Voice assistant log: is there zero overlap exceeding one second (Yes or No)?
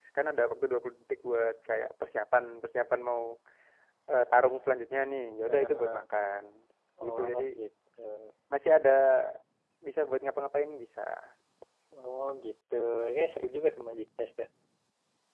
Yes